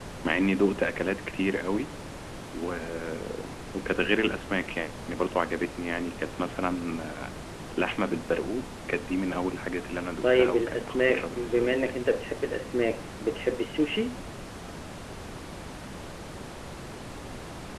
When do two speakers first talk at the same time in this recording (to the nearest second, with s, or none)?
10 s